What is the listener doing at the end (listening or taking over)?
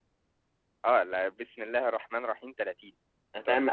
taking over